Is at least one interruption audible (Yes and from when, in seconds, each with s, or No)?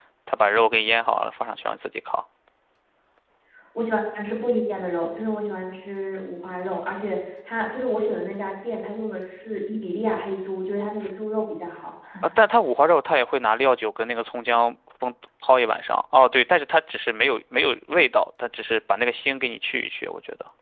No